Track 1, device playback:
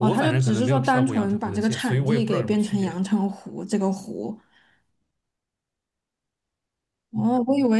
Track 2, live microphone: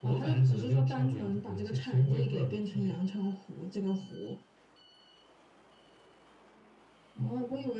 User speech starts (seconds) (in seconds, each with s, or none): none